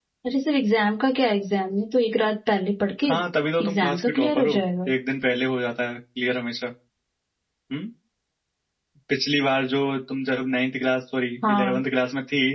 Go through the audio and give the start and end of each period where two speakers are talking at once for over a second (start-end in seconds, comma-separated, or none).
3.6-4.9